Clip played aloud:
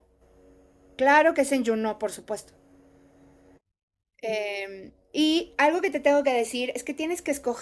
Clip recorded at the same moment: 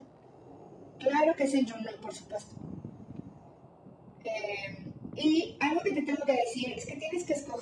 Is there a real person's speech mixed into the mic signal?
No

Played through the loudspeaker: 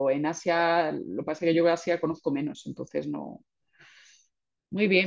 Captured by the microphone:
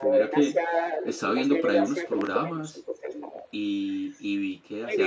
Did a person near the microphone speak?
Yes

